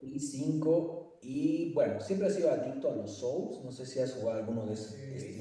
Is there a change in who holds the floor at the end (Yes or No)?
Yes